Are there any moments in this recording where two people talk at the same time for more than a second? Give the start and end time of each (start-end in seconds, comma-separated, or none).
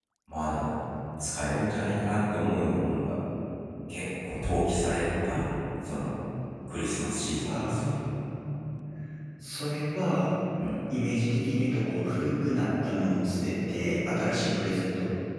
none